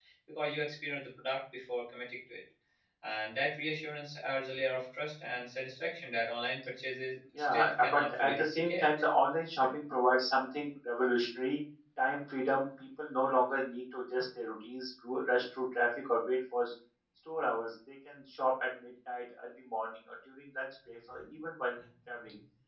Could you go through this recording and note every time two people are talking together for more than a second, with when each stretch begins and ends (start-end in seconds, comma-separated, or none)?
7.4-8.8